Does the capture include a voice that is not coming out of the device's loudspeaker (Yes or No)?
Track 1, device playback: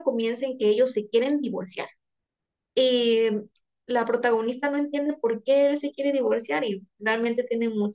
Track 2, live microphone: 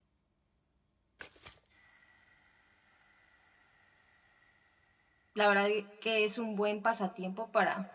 Yes